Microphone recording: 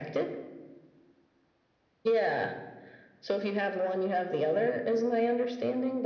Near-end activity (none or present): none